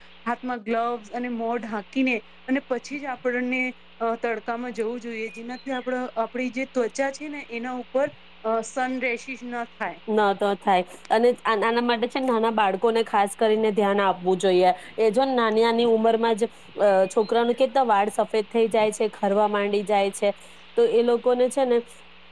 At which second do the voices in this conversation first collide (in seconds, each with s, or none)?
none